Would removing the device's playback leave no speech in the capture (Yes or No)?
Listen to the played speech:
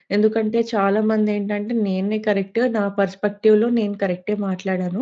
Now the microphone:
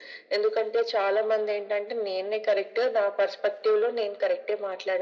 Yes